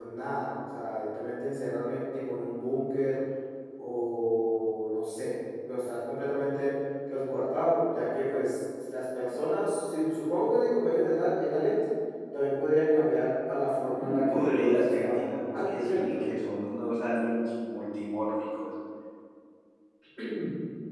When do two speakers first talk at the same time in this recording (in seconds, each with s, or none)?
13.9 s